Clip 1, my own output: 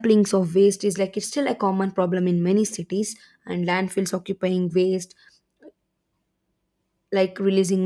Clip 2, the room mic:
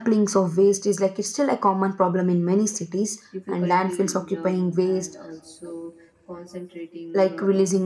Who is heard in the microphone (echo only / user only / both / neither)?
both